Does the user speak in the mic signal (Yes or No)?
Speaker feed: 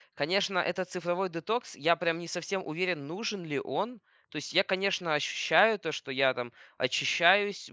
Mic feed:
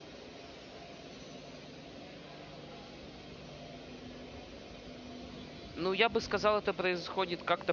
Yes